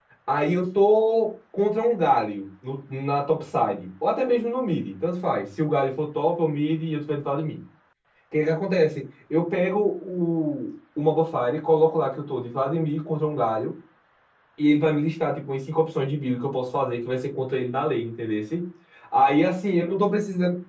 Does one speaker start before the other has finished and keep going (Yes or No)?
No